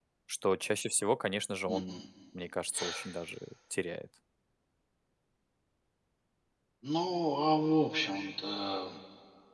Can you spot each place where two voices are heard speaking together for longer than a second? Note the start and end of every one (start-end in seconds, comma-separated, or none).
none